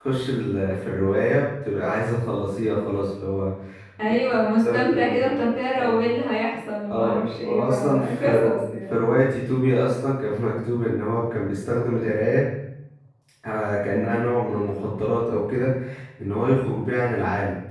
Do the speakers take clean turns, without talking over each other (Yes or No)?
No